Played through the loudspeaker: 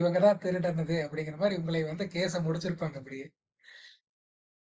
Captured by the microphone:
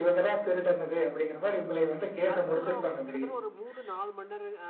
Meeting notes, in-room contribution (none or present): present